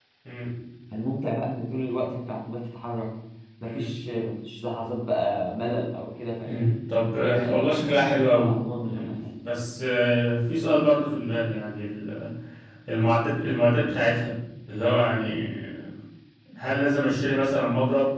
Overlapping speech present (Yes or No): Yes